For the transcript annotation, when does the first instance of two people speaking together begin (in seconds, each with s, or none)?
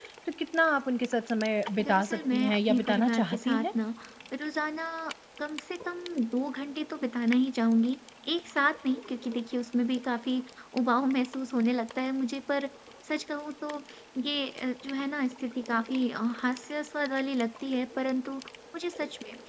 1.8 s